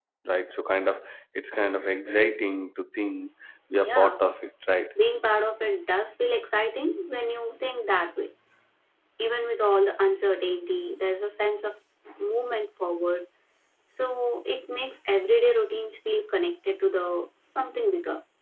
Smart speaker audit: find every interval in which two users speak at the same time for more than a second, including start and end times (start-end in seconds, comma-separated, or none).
none